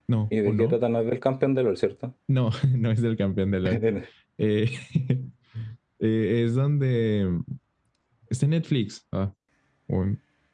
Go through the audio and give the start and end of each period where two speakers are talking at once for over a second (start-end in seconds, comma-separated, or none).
none